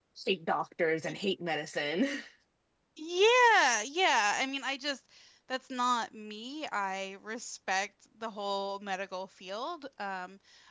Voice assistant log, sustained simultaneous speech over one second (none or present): none